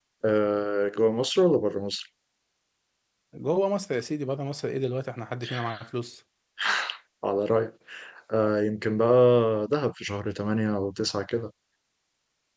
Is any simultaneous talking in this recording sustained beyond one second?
No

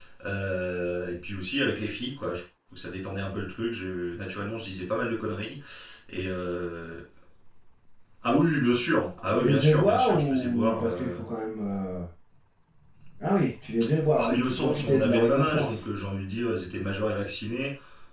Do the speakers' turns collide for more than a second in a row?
Yes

